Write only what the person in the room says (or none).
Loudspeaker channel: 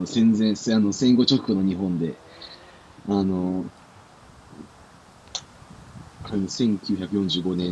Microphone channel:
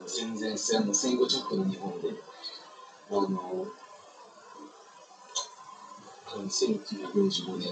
none